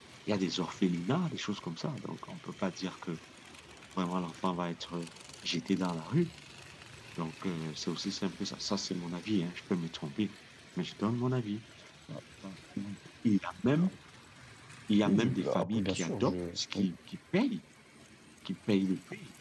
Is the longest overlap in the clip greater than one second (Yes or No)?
Yes